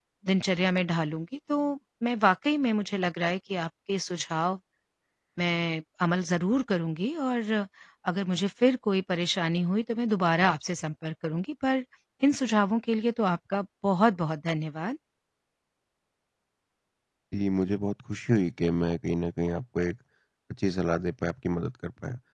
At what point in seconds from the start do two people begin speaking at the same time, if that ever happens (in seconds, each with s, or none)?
none